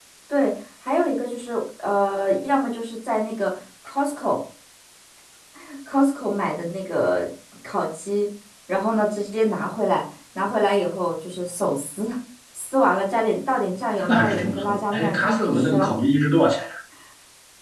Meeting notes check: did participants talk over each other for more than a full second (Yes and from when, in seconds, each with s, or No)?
Yes, from 14.0 s